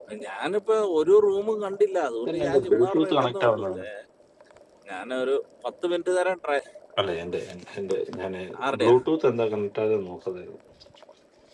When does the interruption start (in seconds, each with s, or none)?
2.3 s